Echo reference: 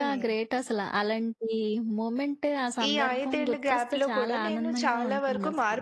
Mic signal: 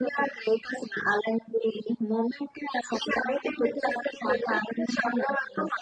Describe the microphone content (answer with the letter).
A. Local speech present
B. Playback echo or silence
B